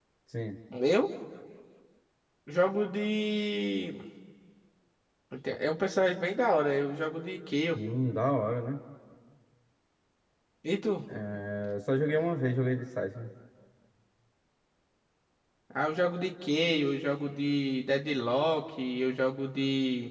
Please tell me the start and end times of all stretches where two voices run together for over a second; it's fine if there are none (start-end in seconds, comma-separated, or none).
none